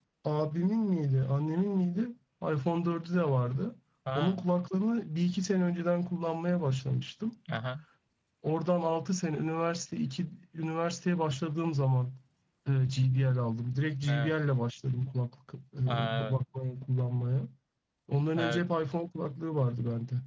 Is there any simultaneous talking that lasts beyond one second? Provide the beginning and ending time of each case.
none

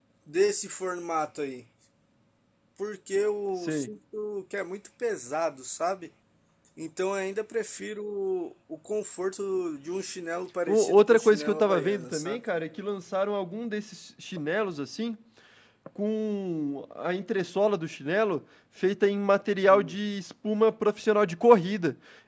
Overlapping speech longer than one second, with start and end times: 10.7-12.4

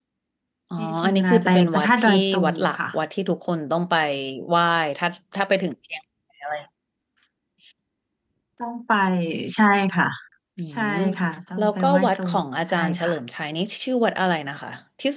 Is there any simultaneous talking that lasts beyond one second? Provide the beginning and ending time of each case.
0.8-2.8, 11.6-13.1

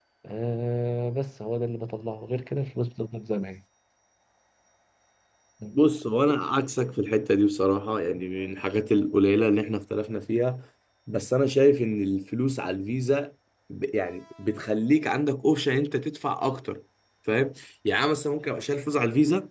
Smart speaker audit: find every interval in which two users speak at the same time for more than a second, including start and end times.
none

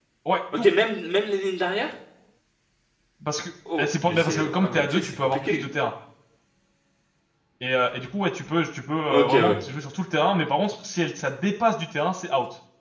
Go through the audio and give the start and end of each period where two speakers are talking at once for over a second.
3.8-5.6

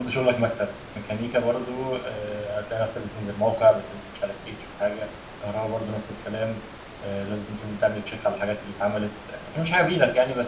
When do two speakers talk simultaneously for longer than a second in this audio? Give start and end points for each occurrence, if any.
none

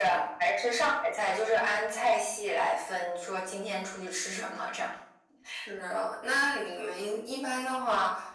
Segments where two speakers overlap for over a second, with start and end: none

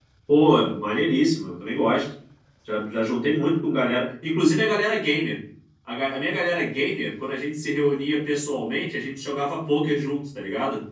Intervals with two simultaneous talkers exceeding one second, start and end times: none

